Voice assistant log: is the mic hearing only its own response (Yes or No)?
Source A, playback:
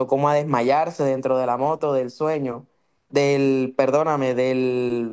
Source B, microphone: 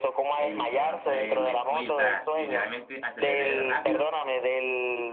No